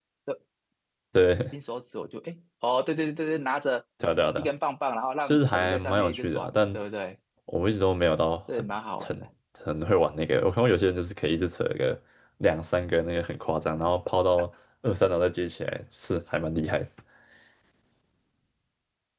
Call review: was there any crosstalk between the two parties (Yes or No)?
Yes